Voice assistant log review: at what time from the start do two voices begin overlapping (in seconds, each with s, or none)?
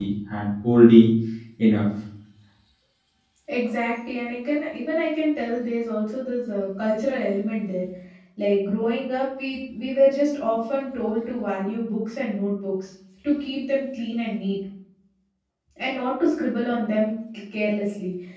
none